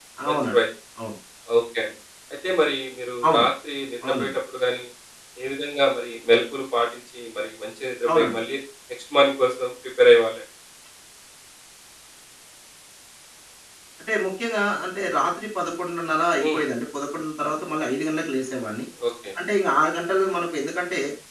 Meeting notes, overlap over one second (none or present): none